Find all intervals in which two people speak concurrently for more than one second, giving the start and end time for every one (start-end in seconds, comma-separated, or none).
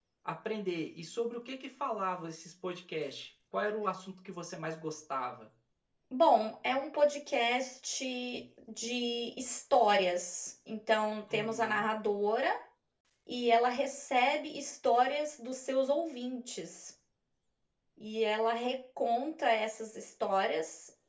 none